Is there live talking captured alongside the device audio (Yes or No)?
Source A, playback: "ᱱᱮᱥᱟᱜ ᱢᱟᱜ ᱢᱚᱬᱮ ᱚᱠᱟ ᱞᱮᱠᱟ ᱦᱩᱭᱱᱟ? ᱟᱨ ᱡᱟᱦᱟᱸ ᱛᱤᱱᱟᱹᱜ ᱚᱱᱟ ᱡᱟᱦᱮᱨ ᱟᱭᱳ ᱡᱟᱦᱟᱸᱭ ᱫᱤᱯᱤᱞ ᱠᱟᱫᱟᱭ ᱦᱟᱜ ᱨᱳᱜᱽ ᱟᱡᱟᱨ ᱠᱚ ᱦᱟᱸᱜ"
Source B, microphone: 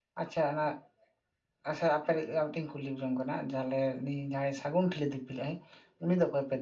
Yes